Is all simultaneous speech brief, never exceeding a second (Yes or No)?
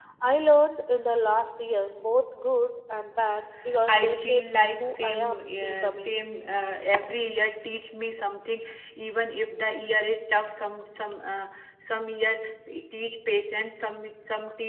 No